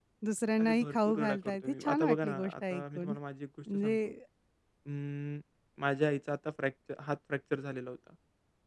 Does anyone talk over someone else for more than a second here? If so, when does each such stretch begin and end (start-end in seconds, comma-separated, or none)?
0.6-3.1